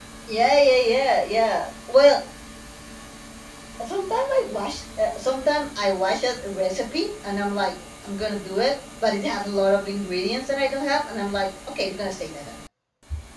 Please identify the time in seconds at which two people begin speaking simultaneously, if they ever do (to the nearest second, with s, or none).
none